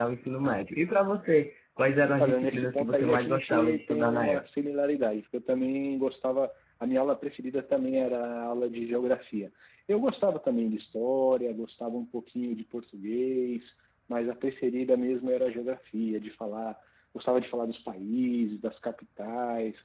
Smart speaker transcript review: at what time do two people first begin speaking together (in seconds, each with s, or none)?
2.2 s